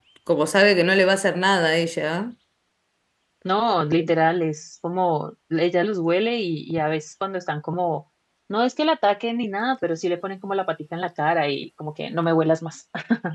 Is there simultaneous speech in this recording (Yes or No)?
No